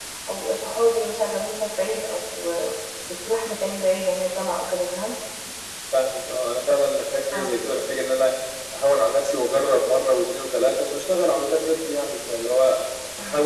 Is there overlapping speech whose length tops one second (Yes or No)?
No